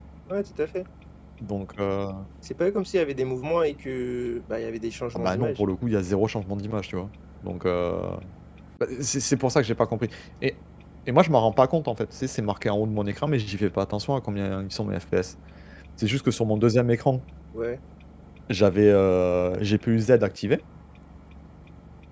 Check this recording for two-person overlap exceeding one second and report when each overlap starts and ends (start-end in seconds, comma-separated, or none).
none